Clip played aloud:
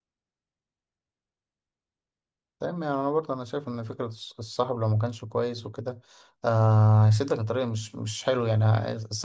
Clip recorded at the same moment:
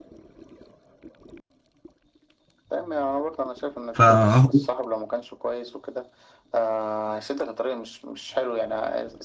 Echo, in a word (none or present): present